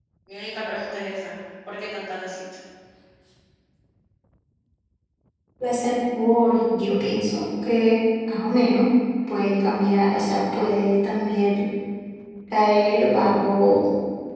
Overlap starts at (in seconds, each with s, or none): none